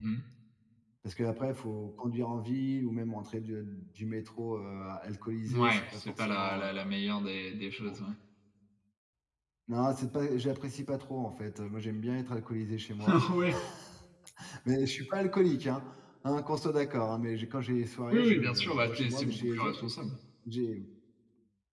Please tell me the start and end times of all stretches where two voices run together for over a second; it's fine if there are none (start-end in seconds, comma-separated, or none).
5.5-6.7, 18.1-19.9